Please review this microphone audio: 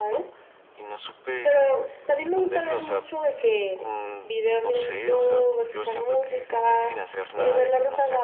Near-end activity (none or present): none